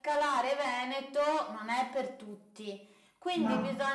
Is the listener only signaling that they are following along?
Yes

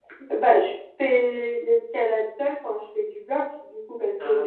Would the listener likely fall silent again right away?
Yes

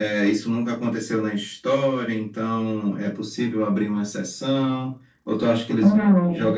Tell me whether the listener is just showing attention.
Yes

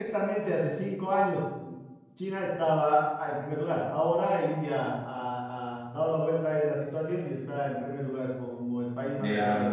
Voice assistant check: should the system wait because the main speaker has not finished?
No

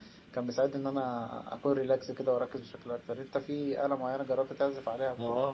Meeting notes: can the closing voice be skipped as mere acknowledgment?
No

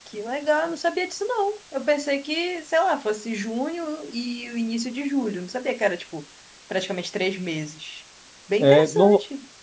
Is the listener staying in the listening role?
No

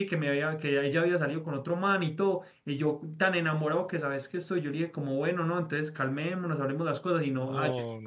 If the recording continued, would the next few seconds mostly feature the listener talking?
No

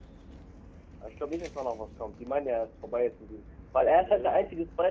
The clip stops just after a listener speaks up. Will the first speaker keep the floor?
Yes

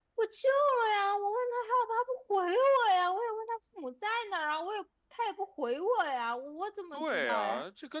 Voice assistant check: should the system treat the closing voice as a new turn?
Yes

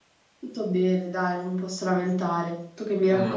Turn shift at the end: Yes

